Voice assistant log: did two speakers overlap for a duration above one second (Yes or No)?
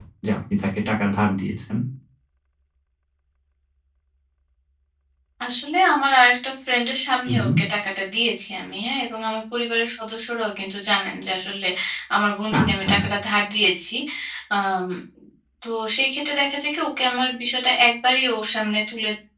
No